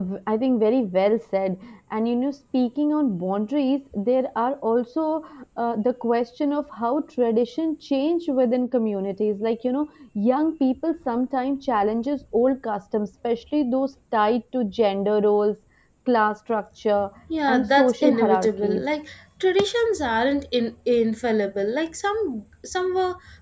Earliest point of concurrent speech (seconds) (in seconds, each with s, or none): 17.5 s